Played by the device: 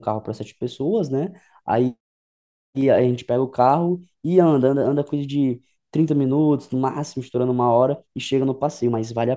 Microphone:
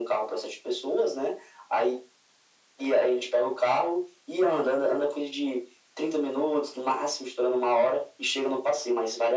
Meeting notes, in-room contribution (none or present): none